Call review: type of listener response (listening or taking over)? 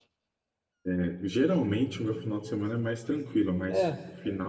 listening